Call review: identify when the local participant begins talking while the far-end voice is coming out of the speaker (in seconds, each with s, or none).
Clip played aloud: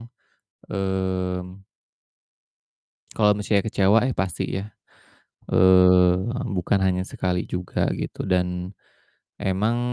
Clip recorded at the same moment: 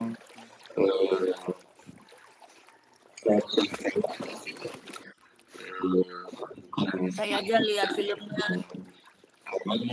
7.2 s